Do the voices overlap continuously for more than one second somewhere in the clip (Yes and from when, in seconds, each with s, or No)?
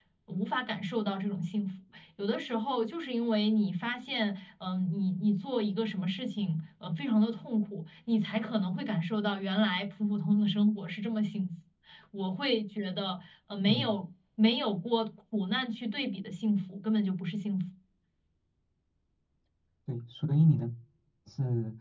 No